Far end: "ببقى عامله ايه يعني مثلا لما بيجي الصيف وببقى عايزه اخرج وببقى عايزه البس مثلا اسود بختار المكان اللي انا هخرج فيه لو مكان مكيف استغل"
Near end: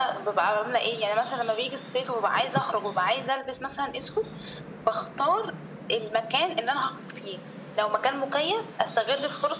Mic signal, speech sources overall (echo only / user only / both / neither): echo only